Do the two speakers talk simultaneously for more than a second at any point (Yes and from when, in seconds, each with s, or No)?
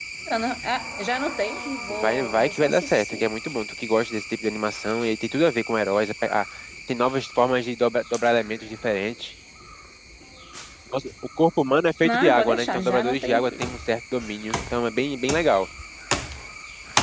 Yes, from 1.9 s